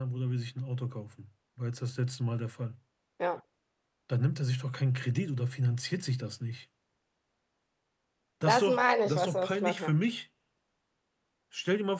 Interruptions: present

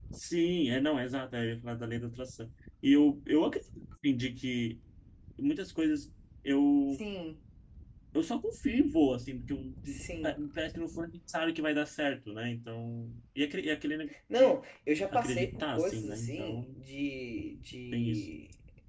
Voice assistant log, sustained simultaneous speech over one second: present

